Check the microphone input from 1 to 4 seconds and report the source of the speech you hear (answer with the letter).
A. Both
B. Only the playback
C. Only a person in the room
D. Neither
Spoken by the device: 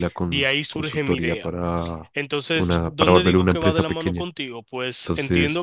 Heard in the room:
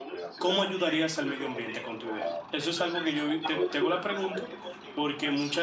A